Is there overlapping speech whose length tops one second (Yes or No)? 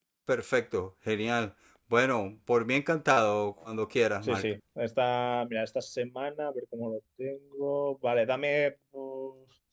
No